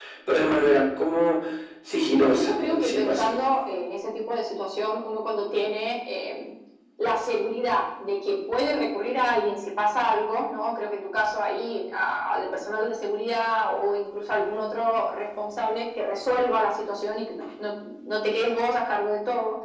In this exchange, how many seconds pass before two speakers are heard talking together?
2.1 s

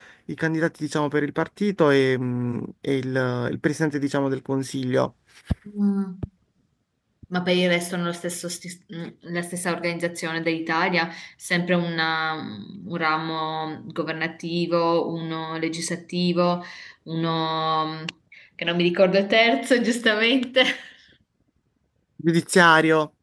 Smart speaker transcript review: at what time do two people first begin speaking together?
none

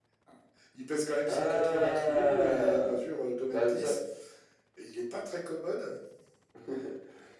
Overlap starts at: 1.3 s

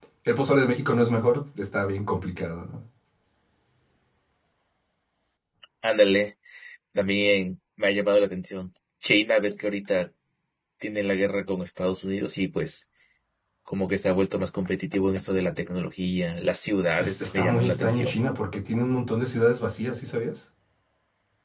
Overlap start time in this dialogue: 17.0 s

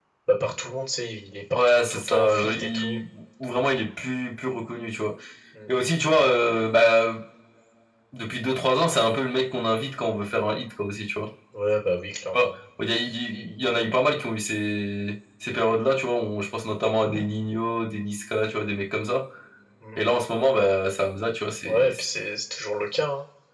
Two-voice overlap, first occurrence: 1.5 s

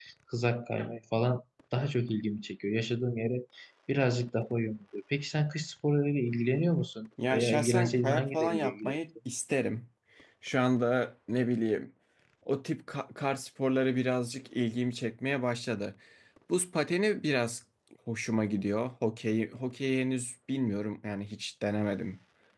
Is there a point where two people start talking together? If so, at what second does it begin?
7.2 s

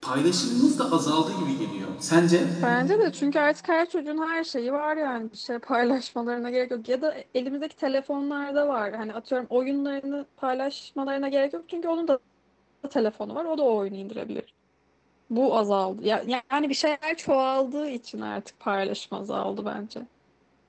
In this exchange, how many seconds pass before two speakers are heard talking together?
none

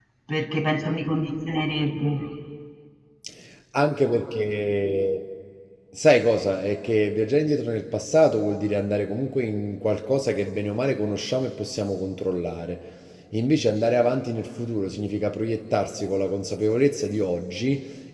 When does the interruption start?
none

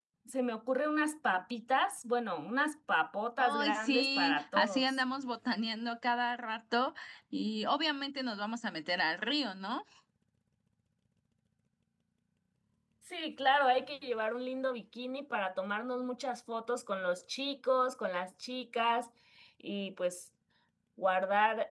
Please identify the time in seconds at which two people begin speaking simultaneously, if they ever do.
3.4 s

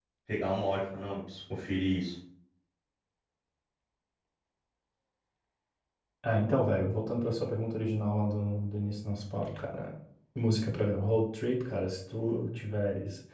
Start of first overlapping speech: none

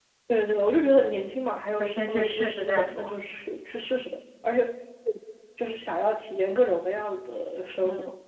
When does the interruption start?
1.8 s

